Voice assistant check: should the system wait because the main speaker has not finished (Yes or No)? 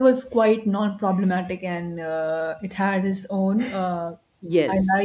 Yes